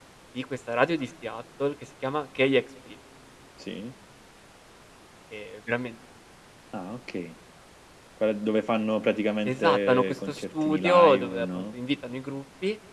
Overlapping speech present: Yes, from 9.4 s

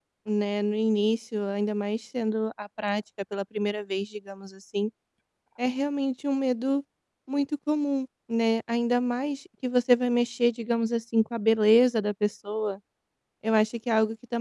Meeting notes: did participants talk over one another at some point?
No

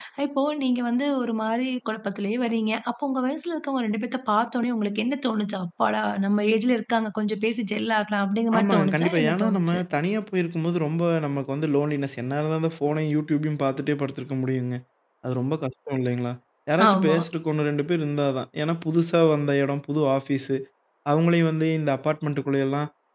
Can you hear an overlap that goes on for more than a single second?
Yes, from 8.6 s

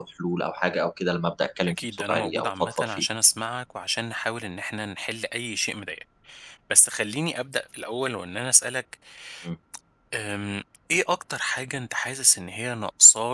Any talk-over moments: Yes, from 1.7 s

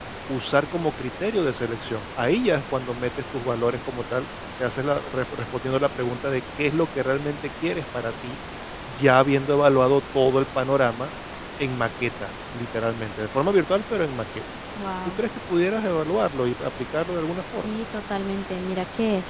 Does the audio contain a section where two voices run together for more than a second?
No

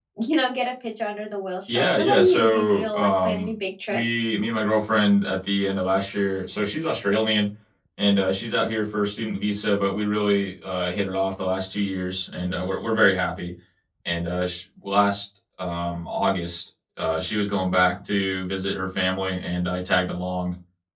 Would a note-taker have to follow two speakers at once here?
Yes, from 1.7 s

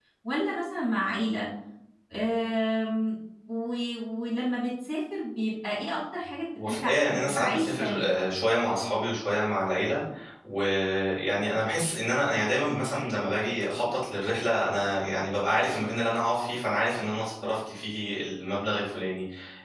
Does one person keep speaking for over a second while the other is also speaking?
Yes, from 6.6 s

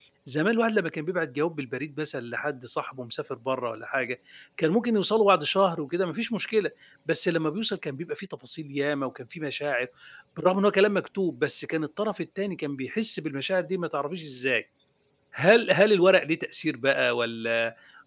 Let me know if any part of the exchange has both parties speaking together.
No

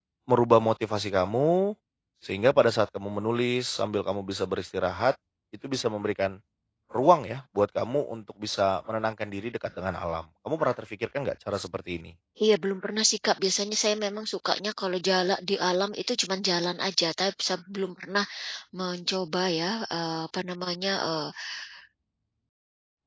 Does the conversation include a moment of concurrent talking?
No

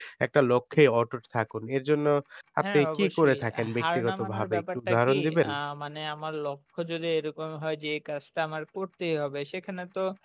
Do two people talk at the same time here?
Yes, from 2.7 s

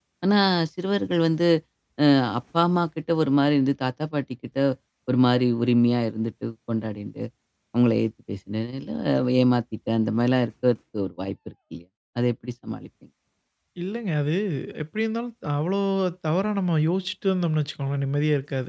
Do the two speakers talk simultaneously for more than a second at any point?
No

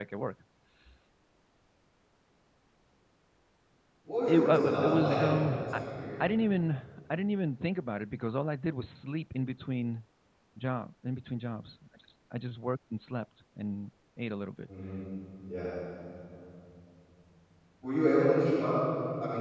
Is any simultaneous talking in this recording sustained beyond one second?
Yes, from 4.3 s

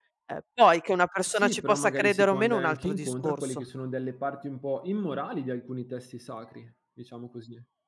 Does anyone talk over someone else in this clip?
Yes, from 1.3 s

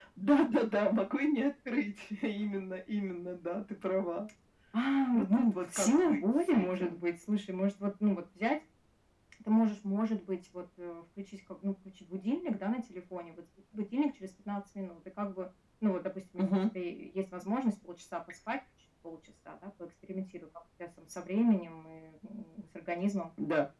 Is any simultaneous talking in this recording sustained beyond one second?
Yes, from 5.1 s

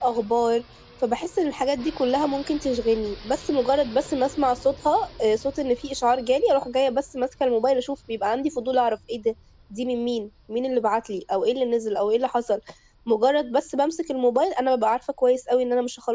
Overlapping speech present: No

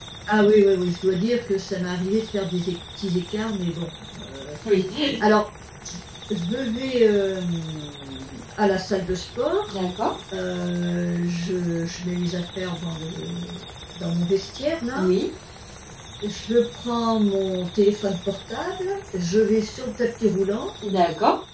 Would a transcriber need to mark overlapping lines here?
No

